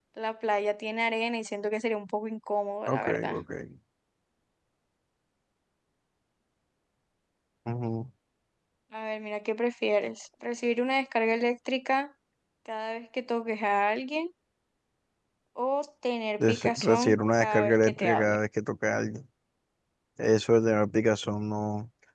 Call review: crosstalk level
present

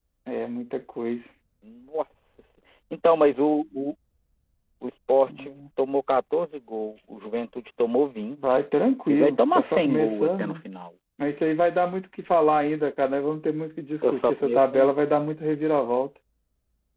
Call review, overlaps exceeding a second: present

